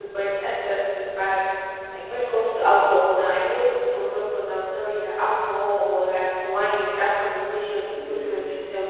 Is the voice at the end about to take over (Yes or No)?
No